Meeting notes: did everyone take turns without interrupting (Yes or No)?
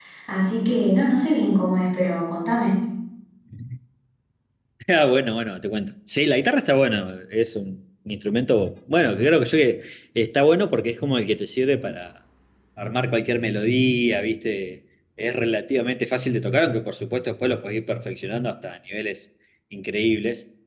Yes